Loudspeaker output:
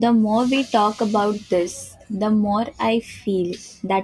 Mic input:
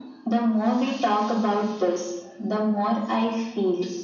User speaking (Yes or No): No